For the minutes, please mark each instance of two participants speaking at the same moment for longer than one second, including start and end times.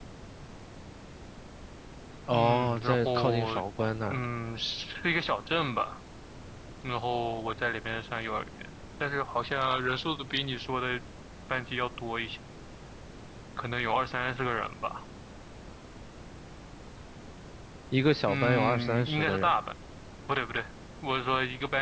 2.3-3.6, 18.3-19.6

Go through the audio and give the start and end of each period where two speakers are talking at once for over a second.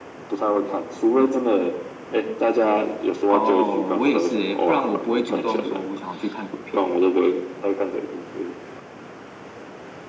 3.3-5.9

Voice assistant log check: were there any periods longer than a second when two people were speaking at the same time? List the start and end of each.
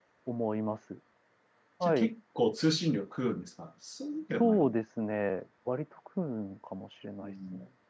none

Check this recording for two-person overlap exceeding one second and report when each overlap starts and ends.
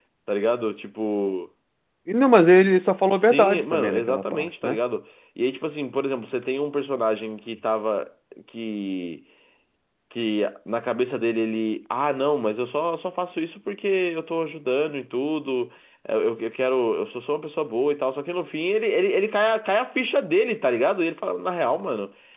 3.1-4.8

